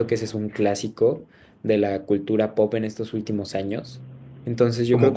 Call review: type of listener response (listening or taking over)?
taking over